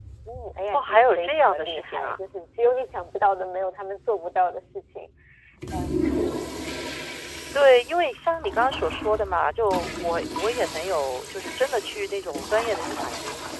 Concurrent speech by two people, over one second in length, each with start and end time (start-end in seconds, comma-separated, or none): 0.7-2.2